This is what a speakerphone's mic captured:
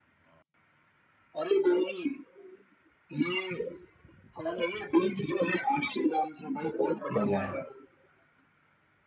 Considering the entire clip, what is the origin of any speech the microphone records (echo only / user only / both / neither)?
both